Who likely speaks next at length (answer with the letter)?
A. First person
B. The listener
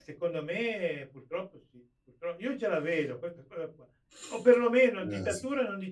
A